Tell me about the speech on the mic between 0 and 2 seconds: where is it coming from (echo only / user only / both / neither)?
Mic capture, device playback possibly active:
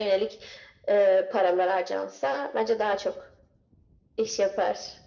echo only